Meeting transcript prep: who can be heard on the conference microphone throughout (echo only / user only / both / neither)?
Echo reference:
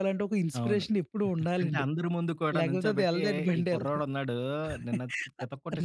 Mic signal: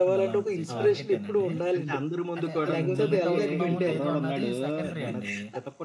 both